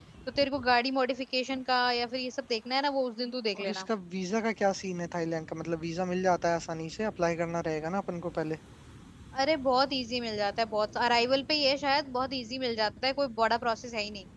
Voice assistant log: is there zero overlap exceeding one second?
Yes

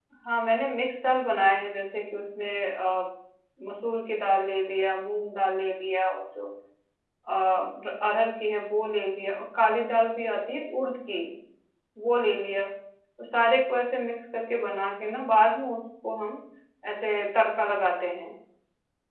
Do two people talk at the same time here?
No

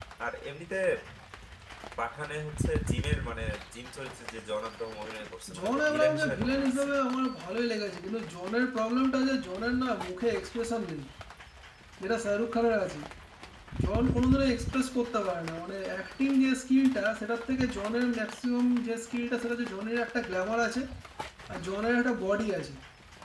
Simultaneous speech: Yes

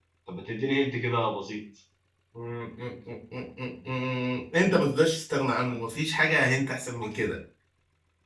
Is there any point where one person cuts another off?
No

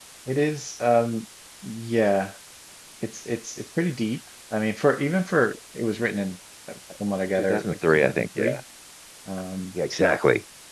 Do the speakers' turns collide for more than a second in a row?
Yes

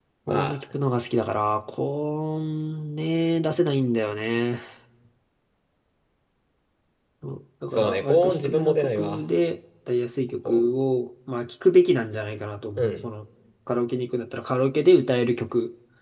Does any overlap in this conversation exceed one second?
Yes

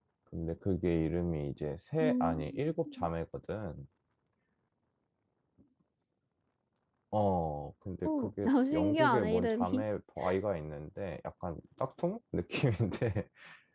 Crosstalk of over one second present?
Yes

